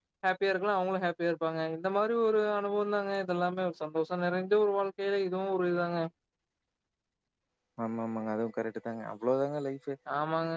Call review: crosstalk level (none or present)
none